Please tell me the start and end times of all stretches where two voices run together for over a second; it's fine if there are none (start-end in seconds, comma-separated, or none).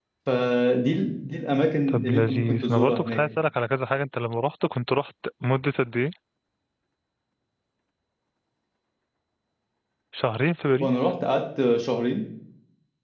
1.9-3.2